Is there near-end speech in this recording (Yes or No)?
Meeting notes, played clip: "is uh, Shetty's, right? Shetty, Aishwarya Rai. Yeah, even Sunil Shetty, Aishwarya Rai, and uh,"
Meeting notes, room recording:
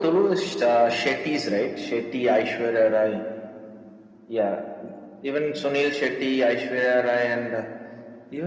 No